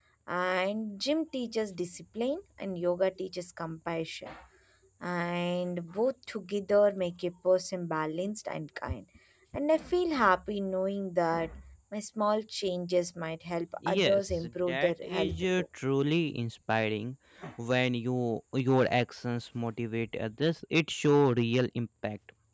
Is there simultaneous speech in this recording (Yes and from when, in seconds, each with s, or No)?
Yes, from 13.8 s